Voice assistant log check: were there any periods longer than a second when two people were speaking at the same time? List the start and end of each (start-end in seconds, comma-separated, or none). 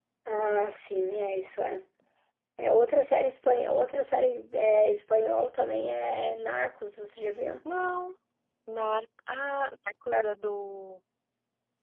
none